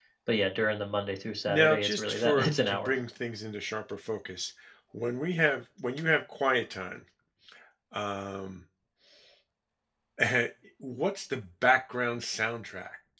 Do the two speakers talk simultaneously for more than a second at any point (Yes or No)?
Yes